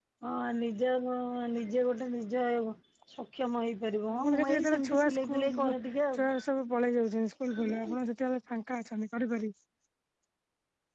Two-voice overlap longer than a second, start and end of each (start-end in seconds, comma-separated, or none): 4.1-5.7